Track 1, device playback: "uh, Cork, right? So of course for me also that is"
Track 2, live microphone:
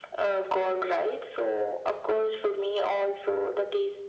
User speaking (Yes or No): No